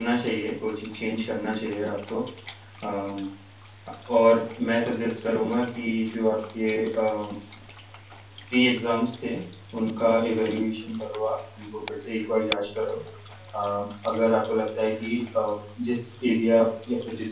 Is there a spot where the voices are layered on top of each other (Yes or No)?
No